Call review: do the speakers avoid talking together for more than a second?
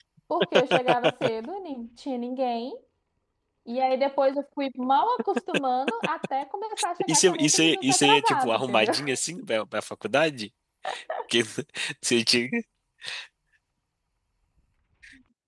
No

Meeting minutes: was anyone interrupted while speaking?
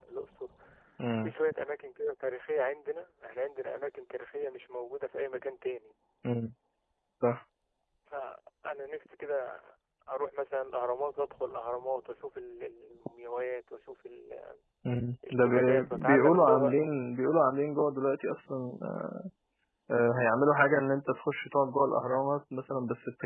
Yes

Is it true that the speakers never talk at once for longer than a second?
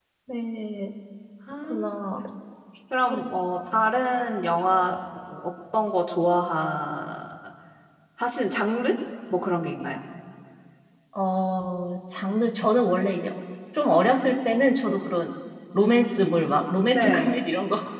Yes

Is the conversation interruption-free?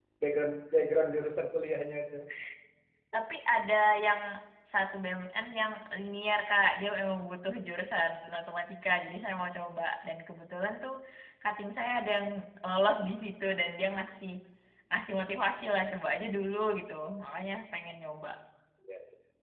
Yes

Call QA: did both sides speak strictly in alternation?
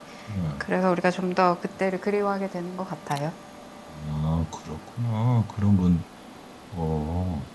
Yes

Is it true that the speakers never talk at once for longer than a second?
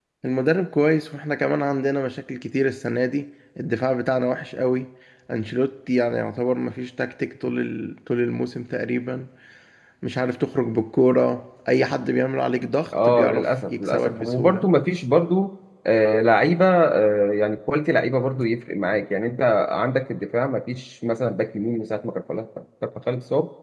No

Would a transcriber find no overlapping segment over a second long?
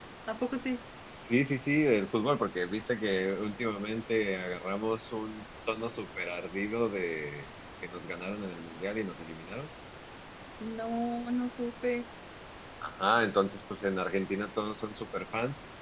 Yes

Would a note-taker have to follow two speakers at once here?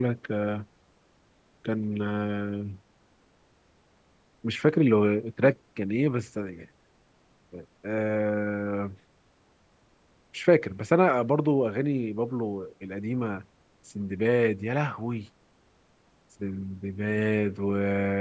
No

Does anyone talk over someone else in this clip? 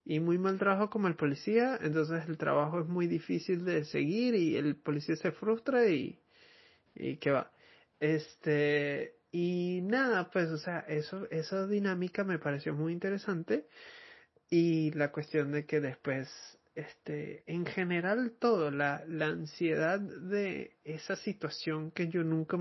No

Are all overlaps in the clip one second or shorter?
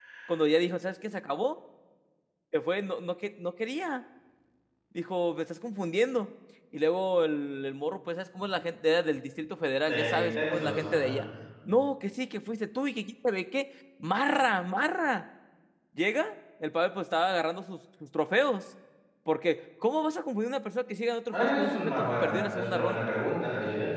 No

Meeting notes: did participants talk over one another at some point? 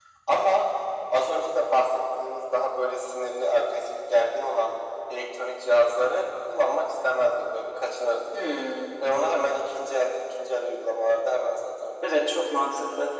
No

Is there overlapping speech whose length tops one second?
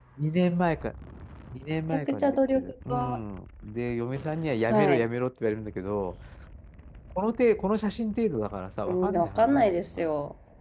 Yes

